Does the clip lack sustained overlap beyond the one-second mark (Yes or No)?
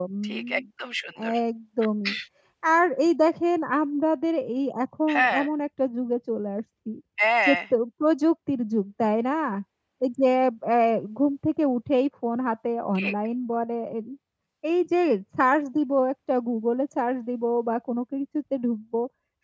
Yes